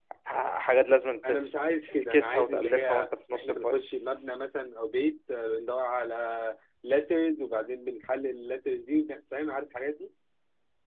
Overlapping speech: Yes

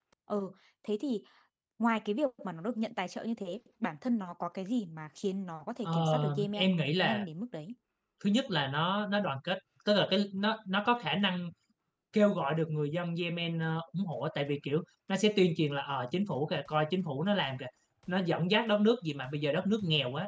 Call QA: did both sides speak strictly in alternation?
No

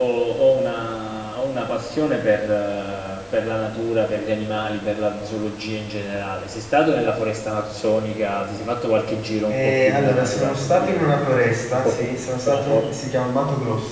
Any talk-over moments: Yes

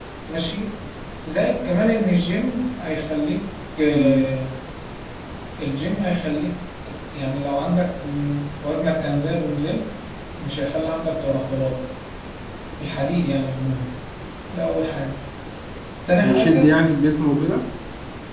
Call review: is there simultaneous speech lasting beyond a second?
No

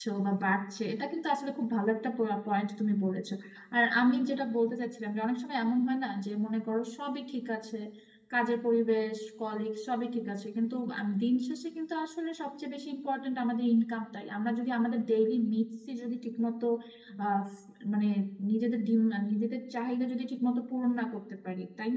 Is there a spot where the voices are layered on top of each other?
No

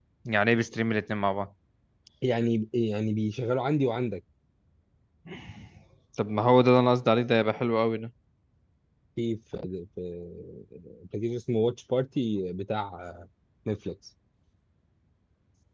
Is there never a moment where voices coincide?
Yes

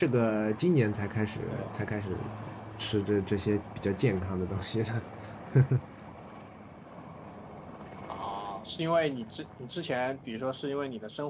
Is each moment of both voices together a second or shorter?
Yes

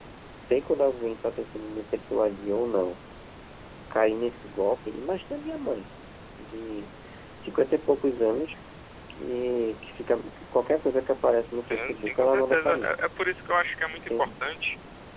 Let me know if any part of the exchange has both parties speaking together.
Yes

